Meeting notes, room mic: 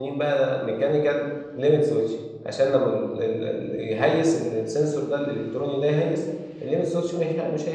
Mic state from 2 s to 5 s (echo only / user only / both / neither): user only